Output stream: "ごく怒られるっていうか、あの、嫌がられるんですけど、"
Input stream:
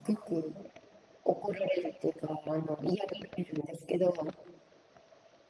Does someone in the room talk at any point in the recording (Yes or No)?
No